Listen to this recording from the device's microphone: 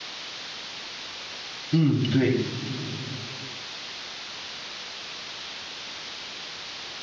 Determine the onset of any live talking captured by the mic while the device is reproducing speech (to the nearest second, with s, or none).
2 s